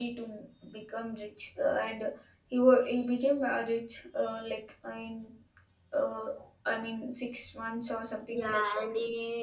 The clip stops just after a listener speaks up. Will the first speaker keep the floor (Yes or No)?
No